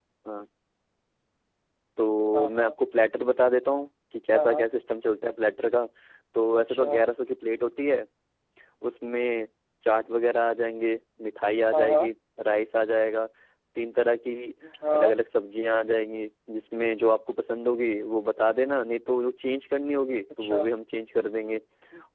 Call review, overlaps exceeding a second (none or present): none